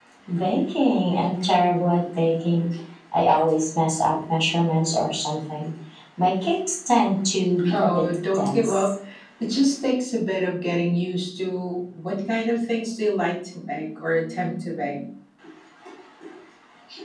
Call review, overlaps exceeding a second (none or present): present